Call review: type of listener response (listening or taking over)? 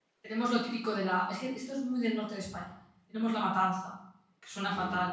listening